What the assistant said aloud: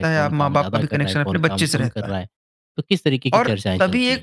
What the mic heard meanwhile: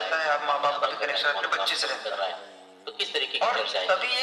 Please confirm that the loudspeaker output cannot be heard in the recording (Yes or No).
No